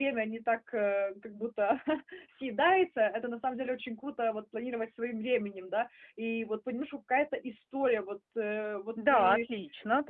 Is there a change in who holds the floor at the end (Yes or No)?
Yes